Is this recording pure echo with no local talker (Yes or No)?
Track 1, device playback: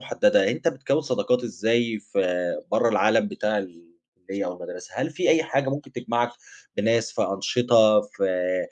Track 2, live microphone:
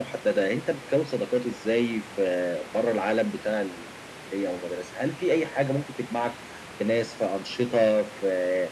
Yes